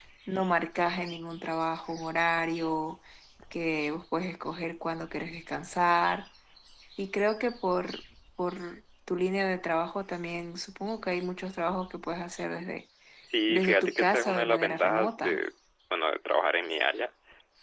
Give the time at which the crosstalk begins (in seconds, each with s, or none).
13.5 s